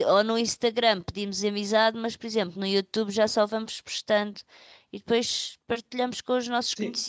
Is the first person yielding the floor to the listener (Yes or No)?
Yes